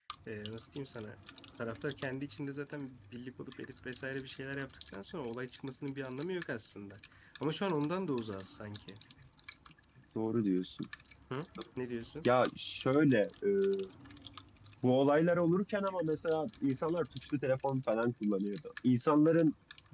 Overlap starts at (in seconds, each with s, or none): none